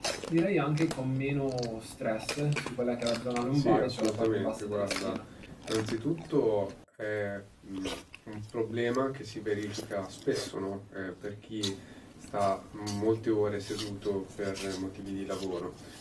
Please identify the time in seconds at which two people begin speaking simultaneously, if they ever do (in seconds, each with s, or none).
3.5 s